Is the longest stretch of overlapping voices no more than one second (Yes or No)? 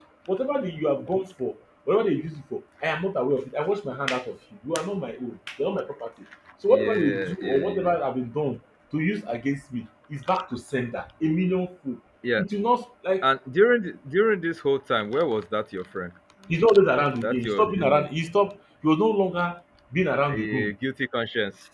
No